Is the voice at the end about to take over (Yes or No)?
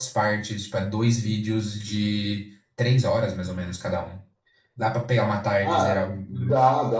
Yes